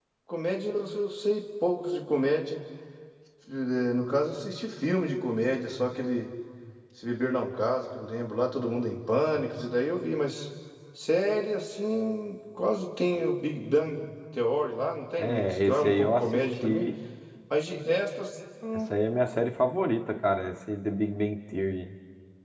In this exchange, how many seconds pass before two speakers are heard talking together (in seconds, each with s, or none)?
15.2 s